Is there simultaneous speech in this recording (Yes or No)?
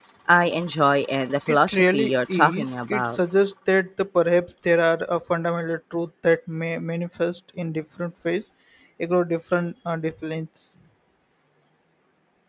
Yes